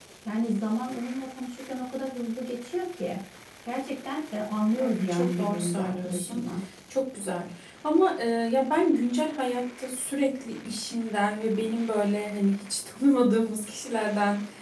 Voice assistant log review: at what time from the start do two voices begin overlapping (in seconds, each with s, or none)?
4.7 s